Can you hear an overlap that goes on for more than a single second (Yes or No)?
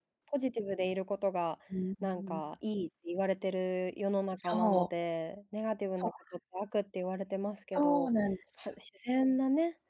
No